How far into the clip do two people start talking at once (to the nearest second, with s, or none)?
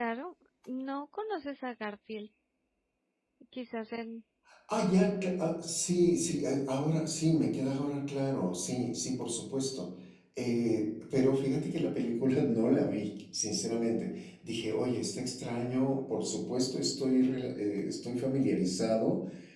none